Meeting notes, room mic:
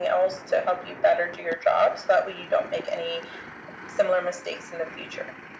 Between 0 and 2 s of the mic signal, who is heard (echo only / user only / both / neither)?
echo only